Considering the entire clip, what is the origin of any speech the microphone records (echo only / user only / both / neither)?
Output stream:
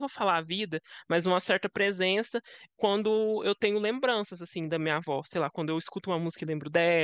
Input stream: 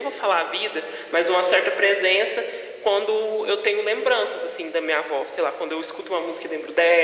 echo only